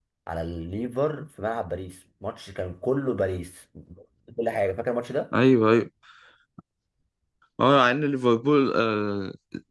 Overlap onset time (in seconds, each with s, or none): none